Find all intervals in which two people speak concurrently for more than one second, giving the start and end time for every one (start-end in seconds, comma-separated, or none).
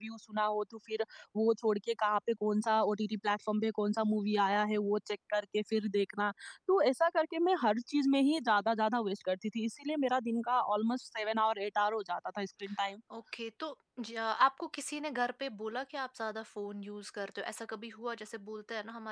none